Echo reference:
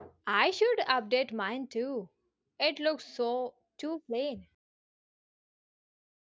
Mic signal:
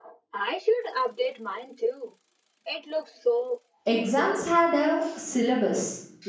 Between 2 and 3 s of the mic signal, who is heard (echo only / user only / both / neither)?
echo only